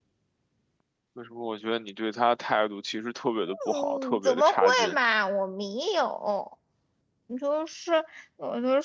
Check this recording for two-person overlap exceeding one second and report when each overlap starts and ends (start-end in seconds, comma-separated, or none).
3.7-5.0